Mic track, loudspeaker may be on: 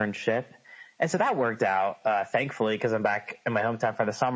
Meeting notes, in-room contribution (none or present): none